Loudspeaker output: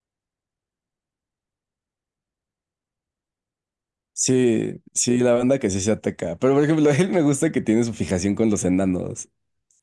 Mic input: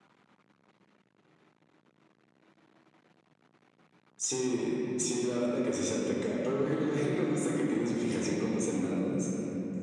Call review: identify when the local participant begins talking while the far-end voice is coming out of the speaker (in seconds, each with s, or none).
none